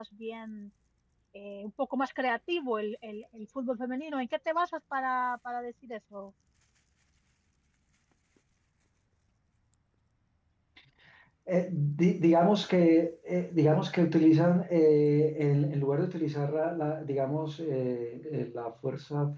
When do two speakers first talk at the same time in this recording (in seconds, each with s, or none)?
none